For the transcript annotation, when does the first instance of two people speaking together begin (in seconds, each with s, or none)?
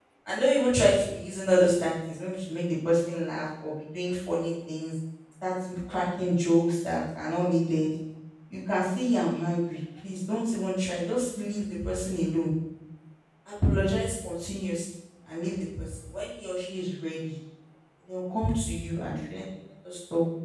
none